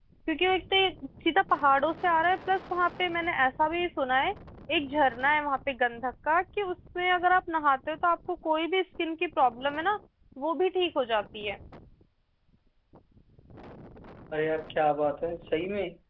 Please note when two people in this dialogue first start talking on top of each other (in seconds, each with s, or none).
none